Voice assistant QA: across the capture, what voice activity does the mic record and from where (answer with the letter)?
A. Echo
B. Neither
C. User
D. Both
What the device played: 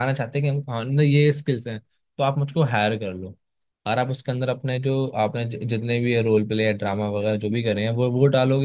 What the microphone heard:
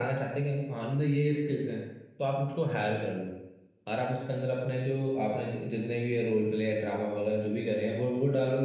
A